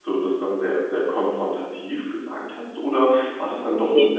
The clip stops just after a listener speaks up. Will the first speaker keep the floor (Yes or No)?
Yes